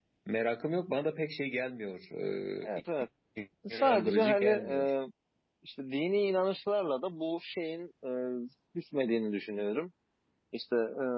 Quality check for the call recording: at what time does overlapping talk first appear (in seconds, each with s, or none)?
3.7 s